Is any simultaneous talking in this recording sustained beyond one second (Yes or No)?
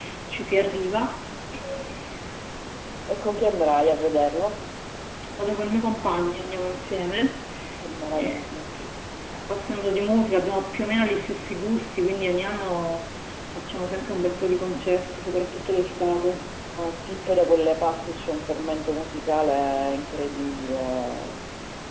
No